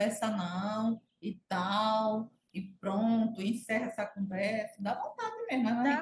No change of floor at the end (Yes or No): No